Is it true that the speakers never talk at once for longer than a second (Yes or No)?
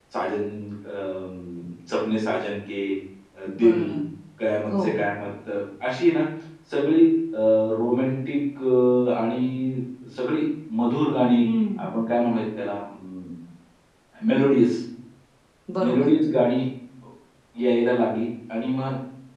Yes